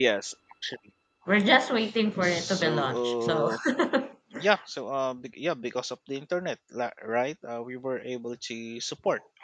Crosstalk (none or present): present